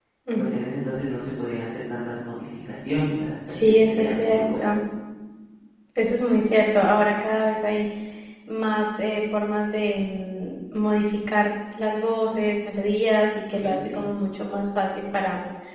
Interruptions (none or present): present